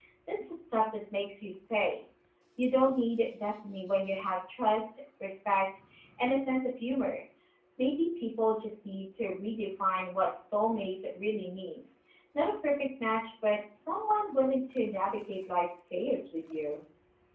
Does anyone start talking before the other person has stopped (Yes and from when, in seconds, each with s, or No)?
No